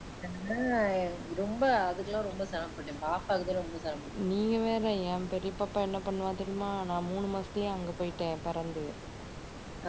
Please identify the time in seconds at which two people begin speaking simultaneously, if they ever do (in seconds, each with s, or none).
none